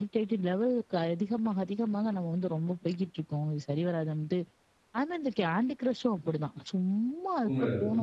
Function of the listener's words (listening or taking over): taking over